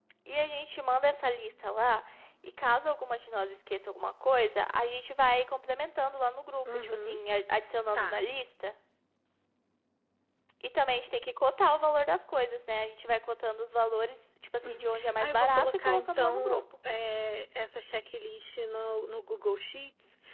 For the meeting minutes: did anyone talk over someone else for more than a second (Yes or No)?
Yes